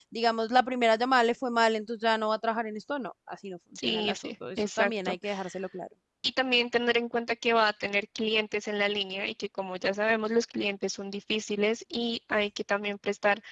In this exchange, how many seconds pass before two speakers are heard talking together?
3.8 s

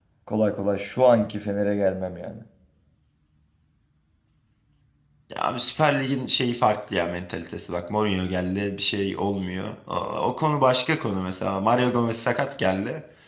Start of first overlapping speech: none

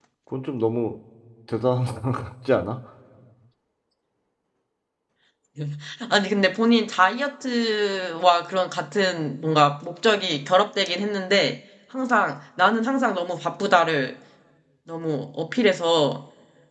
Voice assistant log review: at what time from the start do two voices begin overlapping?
none

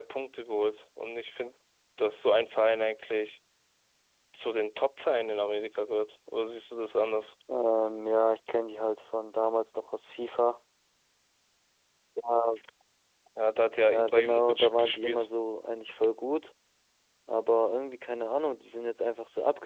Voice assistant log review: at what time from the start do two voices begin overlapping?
13.9 s

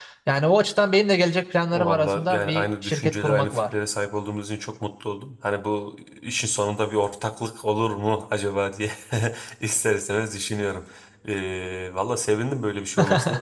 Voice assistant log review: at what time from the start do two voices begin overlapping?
1.7 s

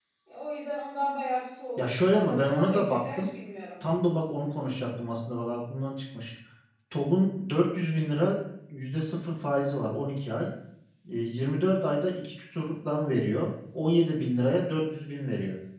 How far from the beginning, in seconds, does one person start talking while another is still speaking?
1.8 s

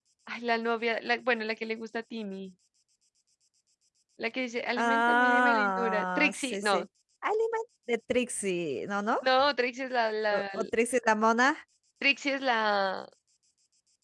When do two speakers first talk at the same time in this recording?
4.8 s

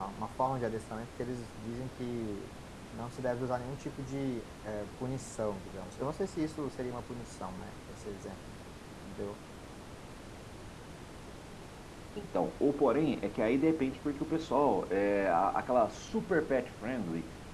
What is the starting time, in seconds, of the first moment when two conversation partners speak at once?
none

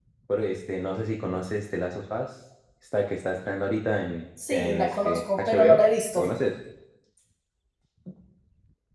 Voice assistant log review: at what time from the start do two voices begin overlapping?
4.4 s

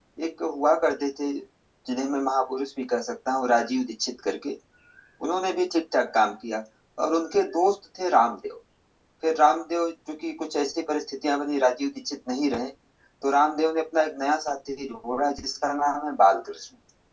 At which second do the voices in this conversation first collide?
none

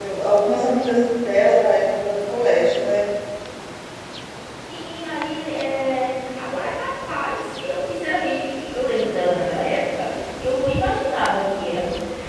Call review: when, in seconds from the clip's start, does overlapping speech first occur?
none

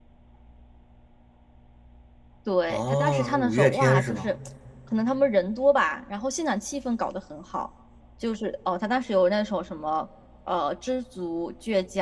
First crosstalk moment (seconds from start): 2.7 s

